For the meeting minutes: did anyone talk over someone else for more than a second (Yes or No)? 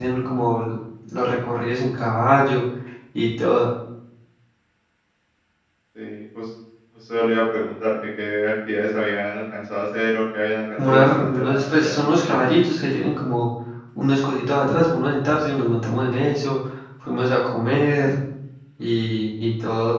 Yes